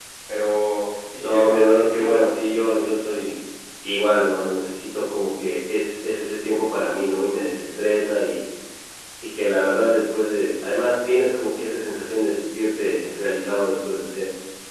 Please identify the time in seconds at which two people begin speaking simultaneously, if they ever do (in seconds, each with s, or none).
1.2 s